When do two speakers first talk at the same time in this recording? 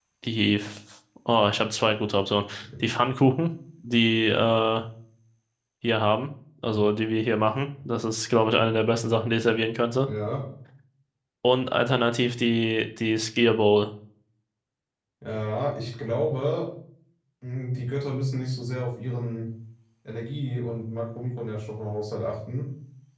none

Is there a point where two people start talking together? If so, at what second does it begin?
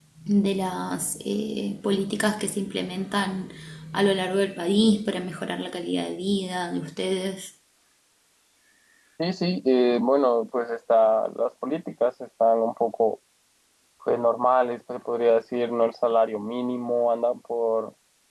none

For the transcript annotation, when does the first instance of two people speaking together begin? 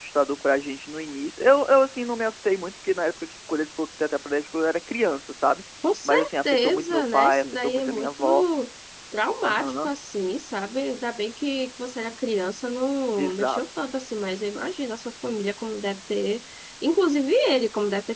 6.0 s

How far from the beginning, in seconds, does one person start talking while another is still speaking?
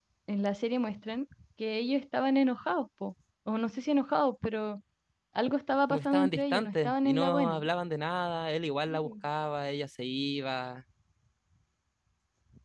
5.9 s

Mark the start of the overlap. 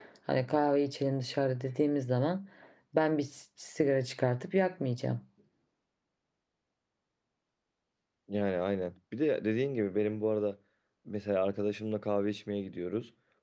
none

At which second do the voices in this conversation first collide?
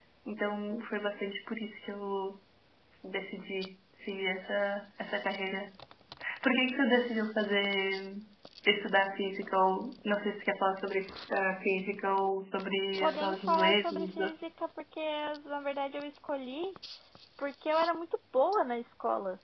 13.0 s

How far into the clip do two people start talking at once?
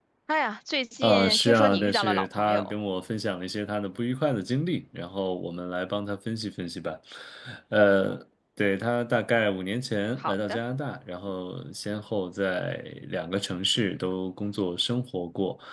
1.0 s

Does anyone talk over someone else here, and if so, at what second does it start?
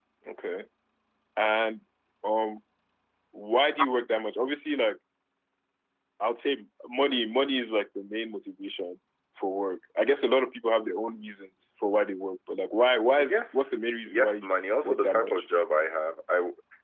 13.2 s

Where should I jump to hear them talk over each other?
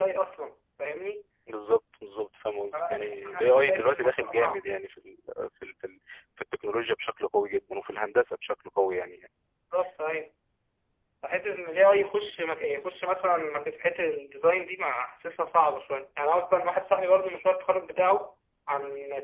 2.7 s

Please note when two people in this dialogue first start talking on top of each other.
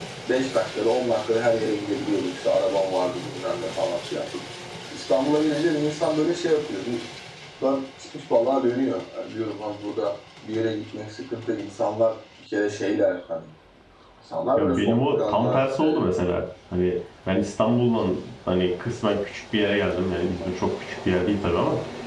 14.6 s

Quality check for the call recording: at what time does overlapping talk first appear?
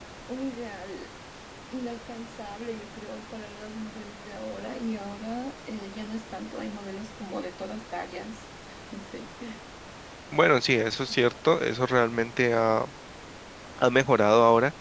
none

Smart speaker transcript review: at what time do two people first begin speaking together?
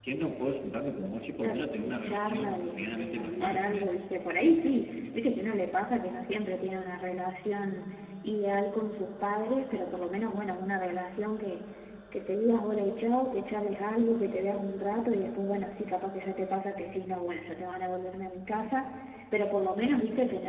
1.4 s

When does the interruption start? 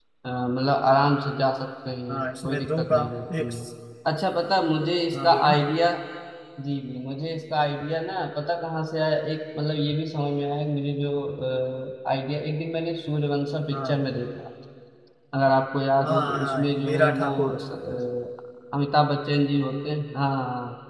2.1 s

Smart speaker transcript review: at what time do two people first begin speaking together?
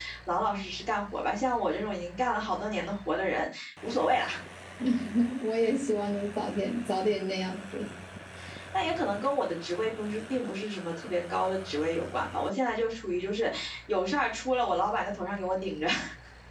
none

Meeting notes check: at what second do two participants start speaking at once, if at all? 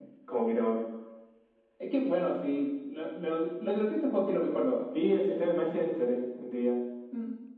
none

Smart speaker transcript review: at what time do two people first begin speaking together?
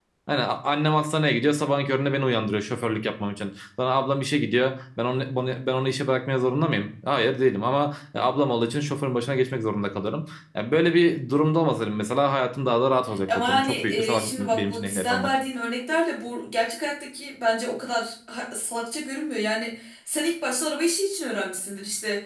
13.3 s

